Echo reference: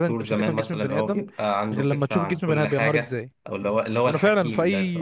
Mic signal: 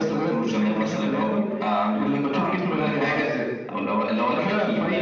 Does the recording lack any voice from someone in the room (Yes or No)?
Yes